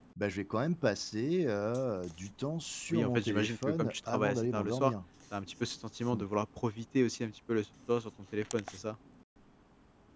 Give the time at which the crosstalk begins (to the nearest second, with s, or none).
3 s